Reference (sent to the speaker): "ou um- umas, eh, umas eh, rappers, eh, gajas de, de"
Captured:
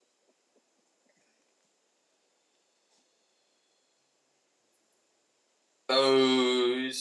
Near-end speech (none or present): present